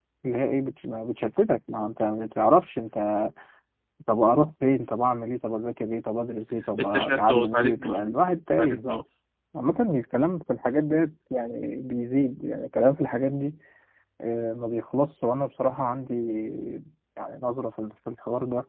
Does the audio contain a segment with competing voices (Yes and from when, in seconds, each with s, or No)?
Yes, from 6.8 s